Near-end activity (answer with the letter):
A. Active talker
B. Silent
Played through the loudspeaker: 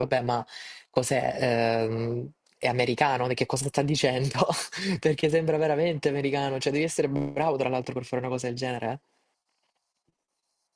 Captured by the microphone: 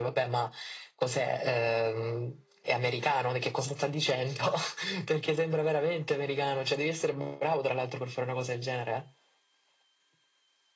B